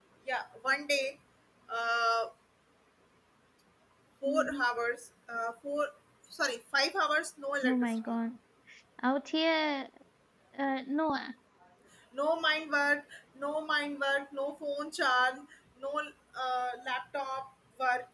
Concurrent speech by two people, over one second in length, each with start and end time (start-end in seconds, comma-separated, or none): none